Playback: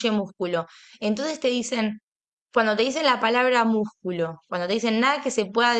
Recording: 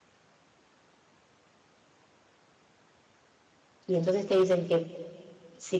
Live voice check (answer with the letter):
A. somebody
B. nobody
A